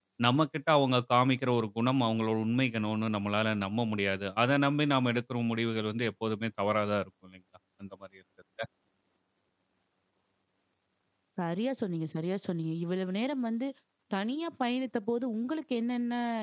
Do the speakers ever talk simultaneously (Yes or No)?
No